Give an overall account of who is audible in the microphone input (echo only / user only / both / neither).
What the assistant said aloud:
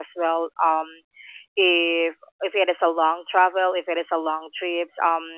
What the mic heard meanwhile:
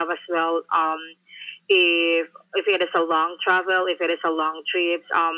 echo only